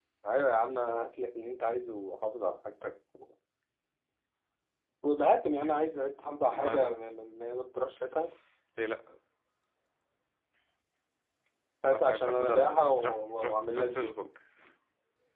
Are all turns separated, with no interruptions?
No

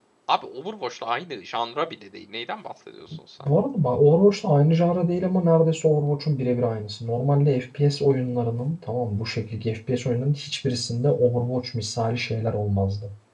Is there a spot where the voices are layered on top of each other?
No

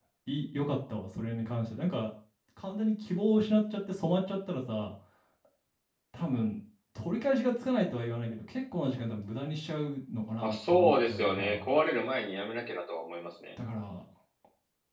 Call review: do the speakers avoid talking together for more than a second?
No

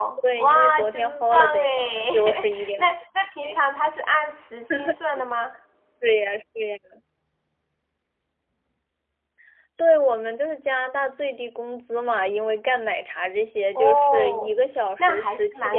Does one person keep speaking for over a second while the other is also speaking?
Yes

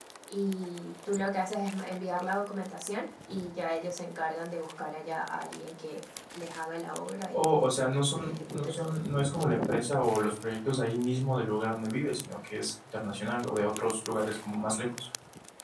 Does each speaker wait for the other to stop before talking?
No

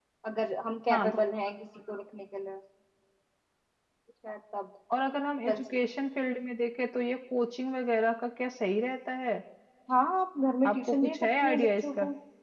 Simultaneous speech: Yes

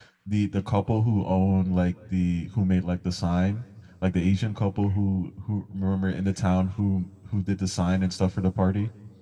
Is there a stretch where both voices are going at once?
No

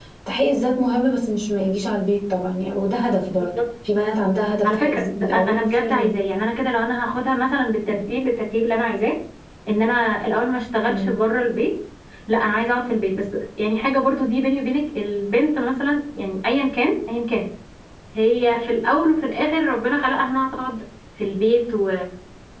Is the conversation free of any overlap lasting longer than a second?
No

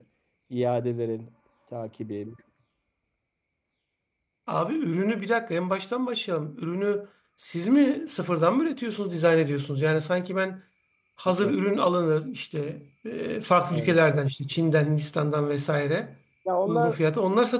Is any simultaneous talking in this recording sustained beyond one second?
No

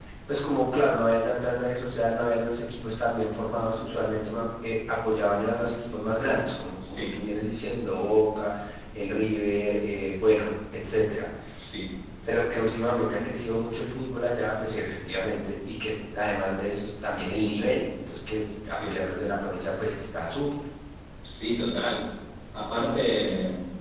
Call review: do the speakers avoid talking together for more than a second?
Yes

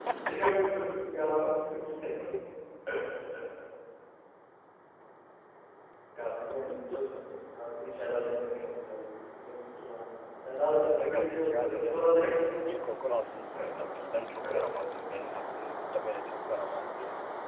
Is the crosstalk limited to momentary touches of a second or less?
No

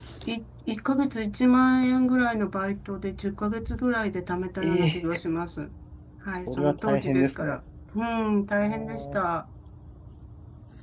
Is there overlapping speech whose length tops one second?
Yes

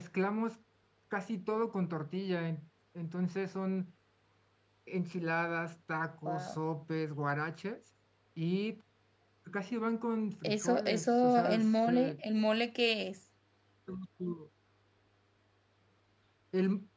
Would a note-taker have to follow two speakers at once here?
Yes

